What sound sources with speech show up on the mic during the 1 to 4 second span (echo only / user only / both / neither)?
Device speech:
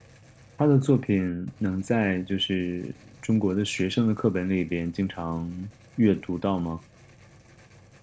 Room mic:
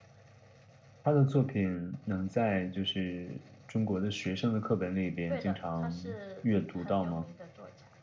echo only